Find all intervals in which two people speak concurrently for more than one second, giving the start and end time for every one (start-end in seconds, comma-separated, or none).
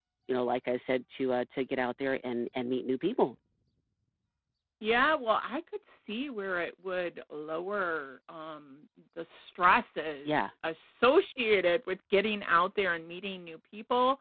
none